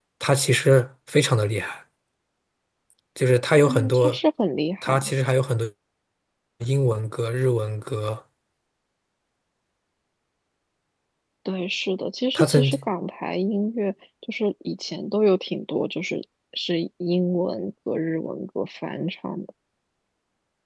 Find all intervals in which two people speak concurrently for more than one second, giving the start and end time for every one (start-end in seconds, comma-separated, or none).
none